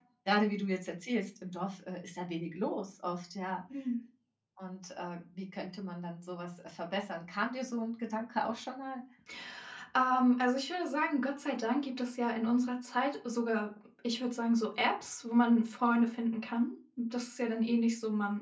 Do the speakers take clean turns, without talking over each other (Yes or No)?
Yes